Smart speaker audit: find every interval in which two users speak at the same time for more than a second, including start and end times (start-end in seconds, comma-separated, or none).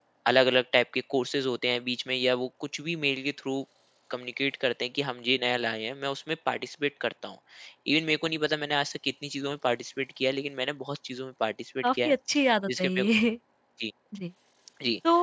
none